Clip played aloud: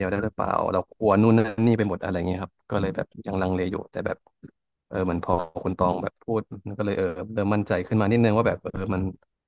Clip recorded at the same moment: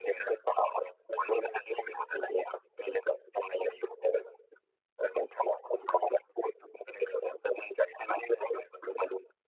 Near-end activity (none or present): none